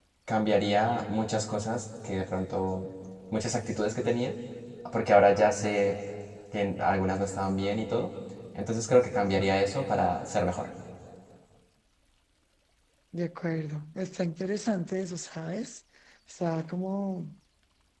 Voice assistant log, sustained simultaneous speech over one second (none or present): none